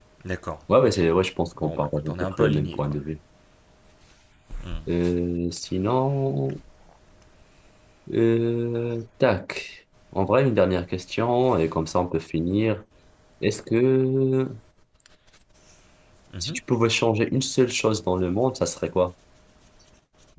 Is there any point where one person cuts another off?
Yes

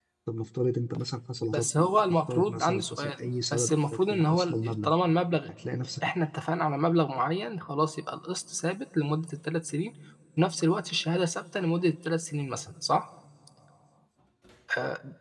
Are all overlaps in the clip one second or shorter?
No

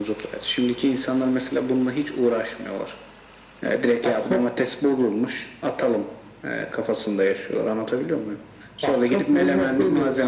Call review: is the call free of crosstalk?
No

